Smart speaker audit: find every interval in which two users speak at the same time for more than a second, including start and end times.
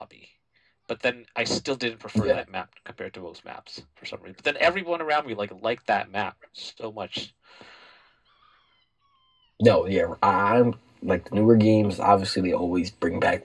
none

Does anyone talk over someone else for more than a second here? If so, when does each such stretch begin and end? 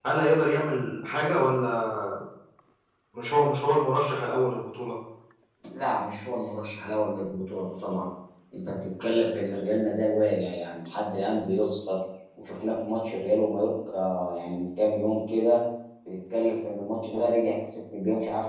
none

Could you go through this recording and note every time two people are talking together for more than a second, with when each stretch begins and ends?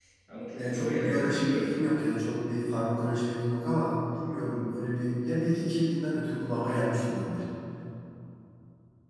0.6-1.8

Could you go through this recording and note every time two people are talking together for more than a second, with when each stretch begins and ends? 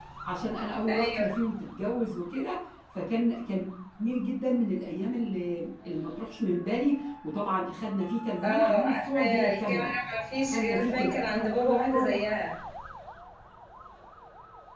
8.4-9.9, 10.4-12.2

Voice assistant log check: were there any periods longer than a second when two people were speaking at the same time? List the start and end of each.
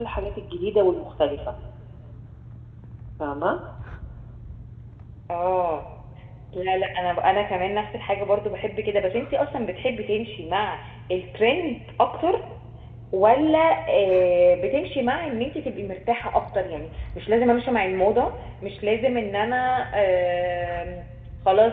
none

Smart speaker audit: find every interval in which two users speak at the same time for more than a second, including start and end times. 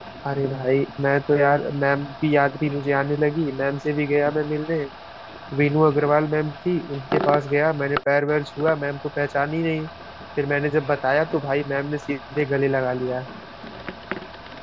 none

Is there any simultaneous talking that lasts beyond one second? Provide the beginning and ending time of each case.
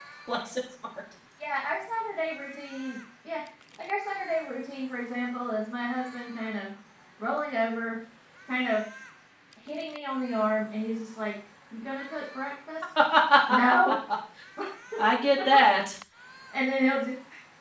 none

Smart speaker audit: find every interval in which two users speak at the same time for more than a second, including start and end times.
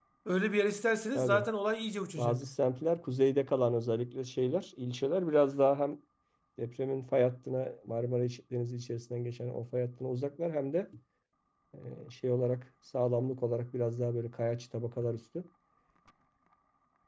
none

